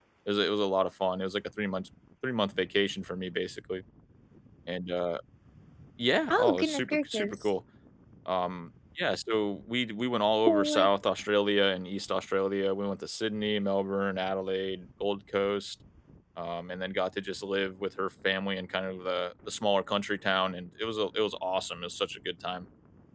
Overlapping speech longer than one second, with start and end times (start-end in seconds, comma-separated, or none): 6.3-7.5